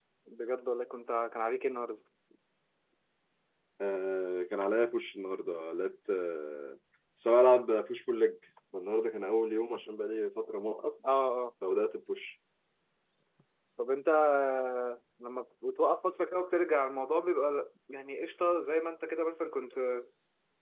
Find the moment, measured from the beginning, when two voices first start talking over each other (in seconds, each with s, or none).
none